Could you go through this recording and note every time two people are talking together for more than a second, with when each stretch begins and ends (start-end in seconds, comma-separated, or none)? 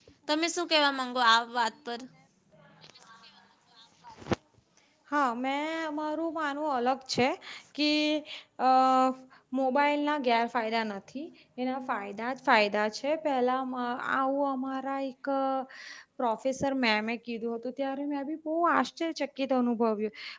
none